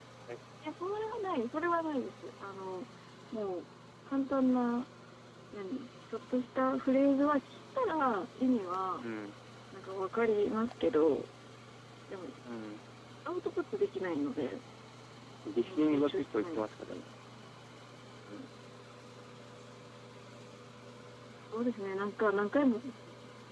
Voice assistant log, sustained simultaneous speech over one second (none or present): present